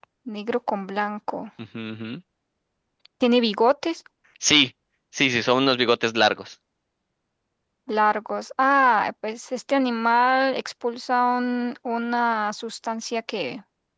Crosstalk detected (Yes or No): No